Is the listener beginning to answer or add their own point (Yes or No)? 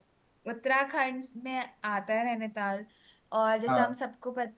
No